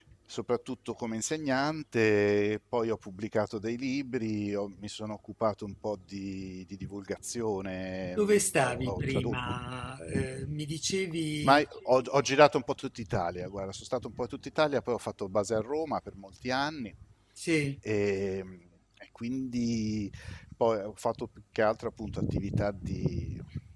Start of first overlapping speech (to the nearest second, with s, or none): 8 s